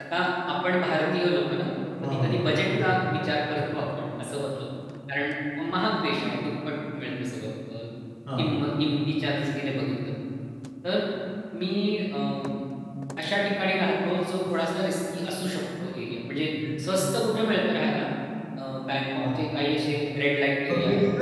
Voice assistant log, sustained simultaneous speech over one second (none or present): none